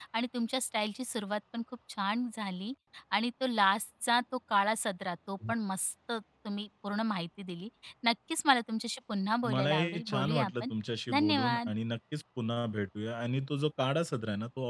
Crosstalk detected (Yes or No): Yes